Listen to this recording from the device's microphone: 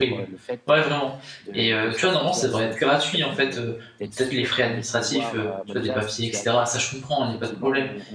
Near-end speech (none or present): present